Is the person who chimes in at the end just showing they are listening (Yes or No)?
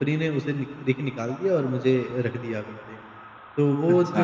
Yes